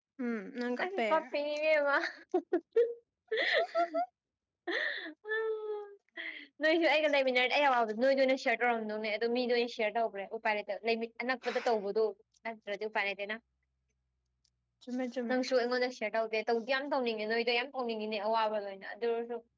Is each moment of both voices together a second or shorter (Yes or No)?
Yes